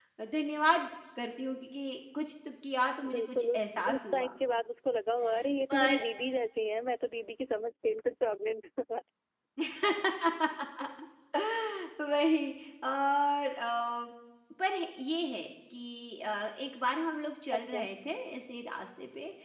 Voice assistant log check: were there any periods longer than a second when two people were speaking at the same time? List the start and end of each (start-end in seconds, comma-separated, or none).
3.1-4.3